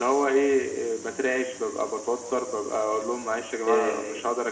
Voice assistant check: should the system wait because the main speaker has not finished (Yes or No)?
Yes